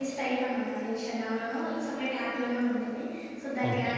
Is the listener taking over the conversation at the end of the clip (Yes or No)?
No